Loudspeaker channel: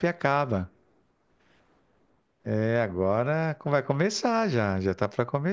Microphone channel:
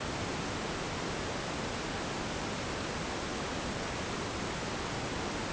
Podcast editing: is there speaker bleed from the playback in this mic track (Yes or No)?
No